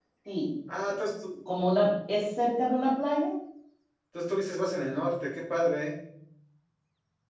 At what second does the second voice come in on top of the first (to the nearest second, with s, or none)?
none